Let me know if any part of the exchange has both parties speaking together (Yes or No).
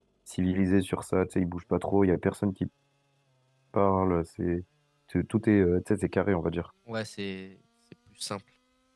No